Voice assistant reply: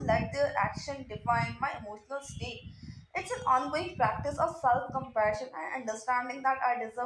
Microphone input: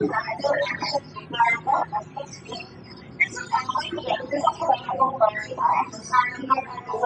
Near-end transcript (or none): none